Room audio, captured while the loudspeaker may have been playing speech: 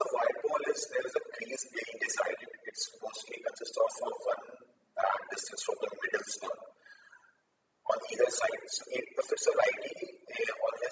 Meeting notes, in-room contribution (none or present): none